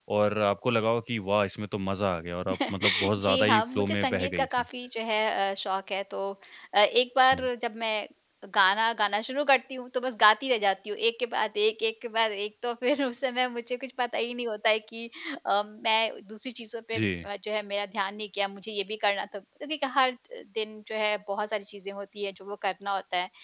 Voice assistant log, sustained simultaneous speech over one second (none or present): present